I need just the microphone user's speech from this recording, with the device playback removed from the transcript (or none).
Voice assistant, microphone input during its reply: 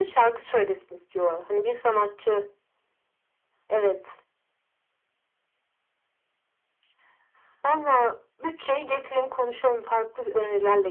none